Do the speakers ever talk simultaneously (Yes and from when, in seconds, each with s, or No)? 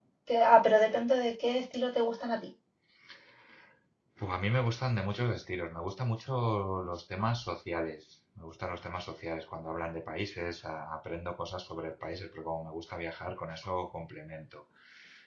No